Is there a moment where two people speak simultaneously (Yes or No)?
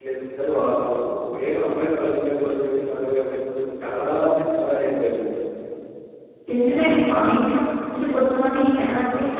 No